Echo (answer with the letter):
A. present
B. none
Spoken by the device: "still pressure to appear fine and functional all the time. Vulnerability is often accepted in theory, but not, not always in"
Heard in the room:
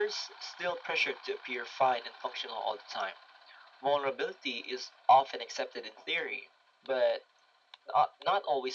A